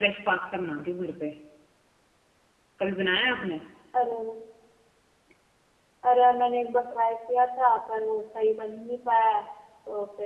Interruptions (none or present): none